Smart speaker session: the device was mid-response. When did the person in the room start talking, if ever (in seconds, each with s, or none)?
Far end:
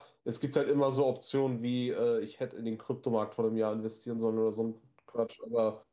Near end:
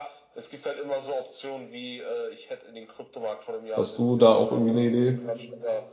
3.8 s